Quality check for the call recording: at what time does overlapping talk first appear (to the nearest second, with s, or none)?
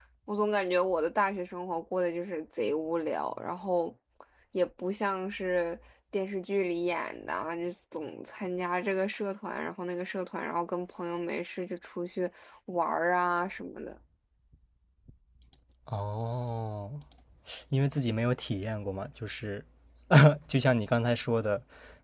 none